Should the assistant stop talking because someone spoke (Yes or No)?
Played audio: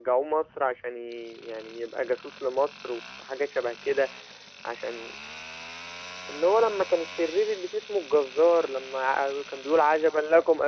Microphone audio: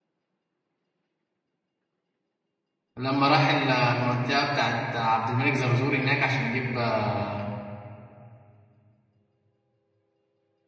Yes